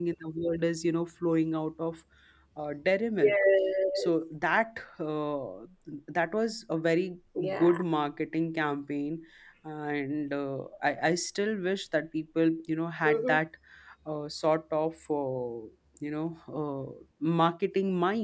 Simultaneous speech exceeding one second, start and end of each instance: none

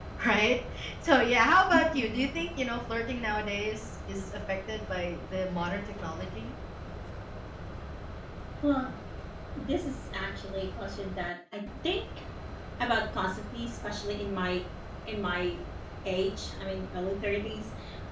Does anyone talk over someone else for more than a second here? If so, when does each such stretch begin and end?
none

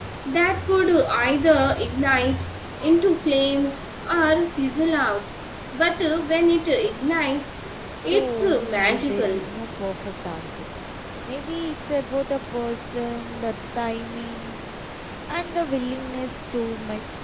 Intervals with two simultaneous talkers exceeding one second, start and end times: 8.0-9.5

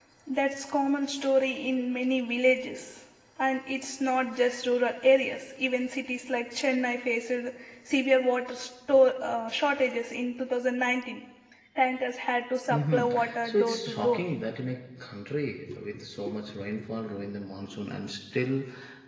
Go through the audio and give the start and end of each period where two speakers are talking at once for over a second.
12.7-14.2

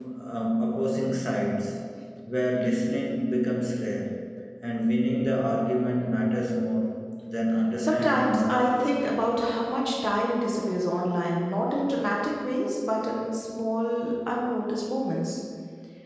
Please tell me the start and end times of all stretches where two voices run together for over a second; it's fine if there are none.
7.8-9.1

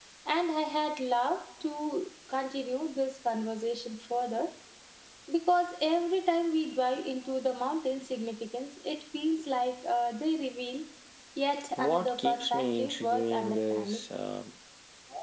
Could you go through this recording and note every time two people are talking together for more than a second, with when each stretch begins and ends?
11.8-14.0

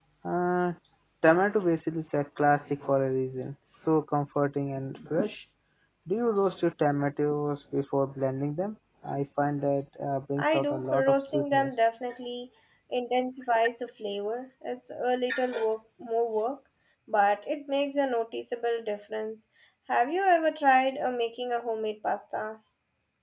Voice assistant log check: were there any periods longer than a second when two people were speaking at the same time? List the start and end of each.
10.4-11.7

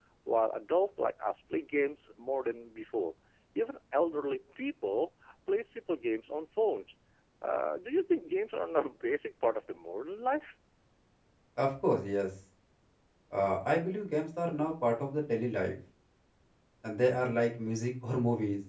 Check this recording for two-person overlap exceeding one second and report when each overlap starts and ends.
none

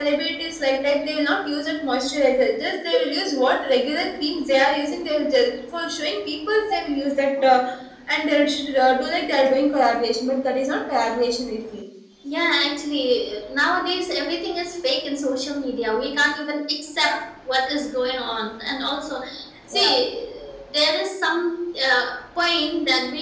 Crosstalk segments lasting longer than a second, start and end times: none

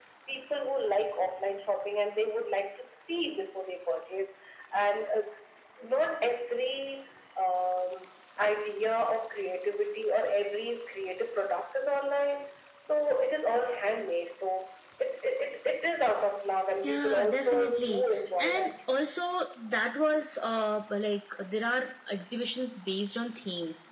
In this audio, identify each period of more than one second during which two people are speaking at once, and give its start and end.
16.8-18.7

